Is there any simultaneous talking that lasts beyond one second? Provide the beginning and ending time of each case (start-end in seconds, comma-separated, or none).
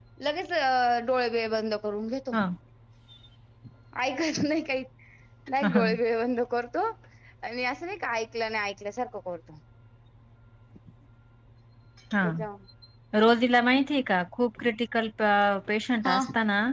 none